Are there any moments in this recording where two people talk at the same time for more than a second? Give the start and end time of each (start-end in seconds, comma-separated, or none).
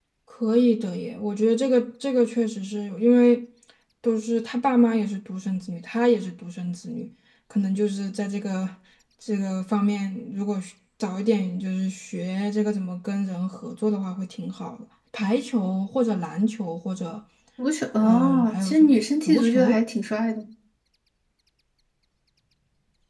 18.0-19.8